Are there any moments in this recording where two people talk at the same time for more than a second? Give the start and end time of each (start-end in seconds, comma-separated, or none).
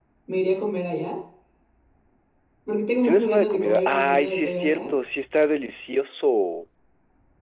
3.0-5.0